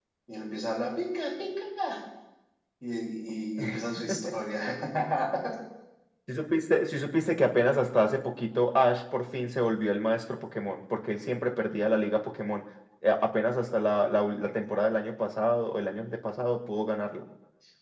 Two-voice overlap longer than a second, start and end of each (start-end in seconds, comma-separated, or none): none